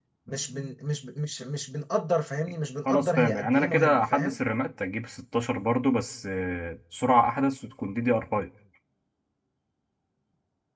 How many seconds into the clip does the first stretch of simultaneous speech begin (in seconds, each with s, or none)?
2.9 s